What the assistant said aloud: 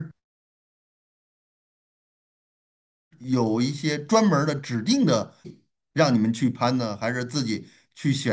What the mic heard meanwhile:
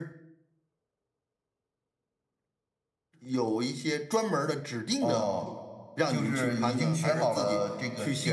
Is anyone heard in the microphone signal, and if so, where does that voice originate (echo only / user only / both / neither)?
both